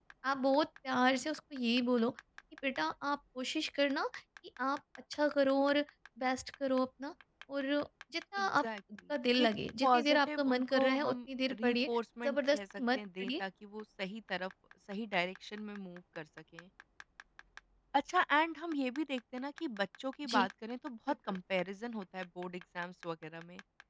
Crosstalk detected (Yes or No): Yes